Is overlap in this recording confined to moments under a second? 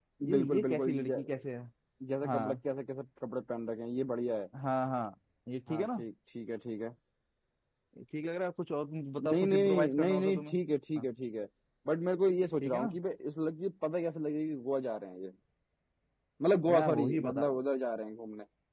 No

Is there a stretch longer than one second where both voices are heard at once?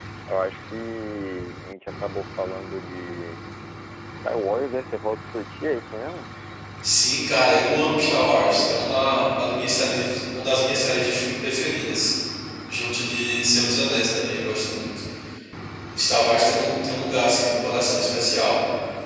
No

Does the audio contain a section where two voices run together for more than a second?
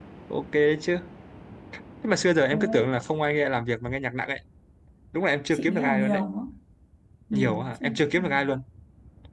Yes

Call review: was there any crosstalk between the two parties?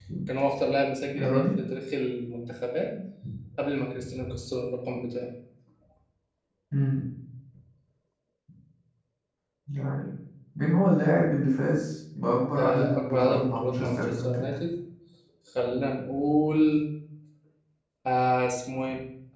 Yes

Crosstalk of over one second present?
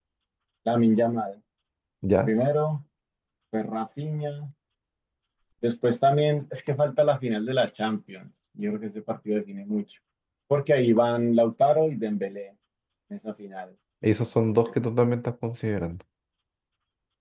No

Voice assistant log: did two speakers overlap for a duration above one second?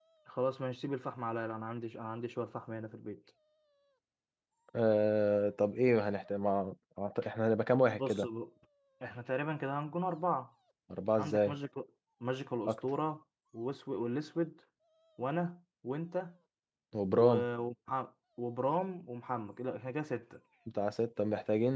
No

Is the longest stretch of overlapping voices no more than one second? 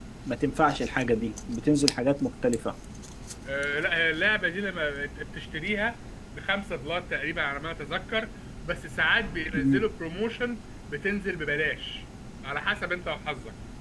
Yes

